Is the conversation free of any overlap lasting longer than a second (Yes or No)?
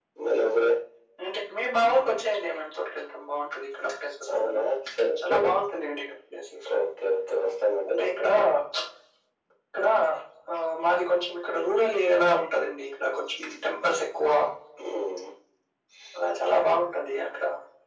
Yes